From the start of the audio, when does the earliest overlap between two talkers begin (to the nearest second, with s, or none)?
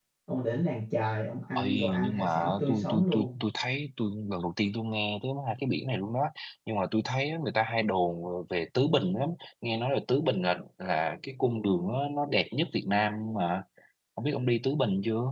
2 s